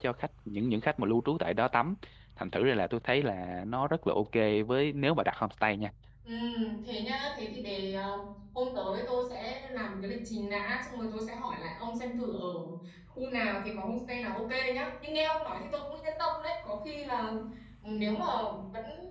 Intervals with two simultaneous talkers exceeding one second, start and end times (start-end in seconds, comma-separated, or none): none